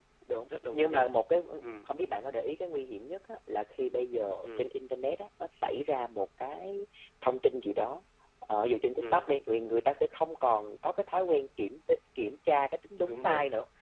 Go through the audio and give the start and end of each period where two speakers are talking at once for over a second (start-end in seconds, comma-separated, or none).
none